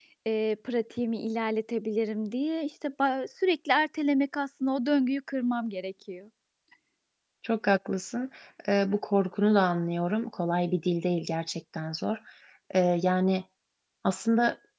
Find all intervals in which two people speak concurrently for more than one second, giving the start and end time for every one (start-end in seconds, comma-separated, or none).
none